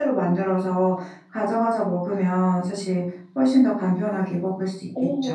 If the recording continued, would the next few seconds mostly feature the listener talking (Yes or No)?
Yes